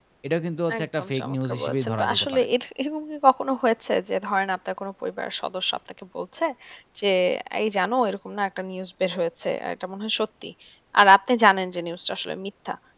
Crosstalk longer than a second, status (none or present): present